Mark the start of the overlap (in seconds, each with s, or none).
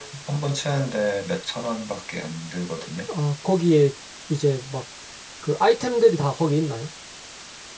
none